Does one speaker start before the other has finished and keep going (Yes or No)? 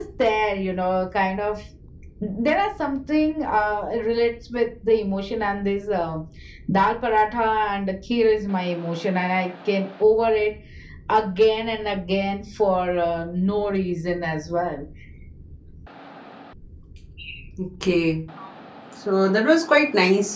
No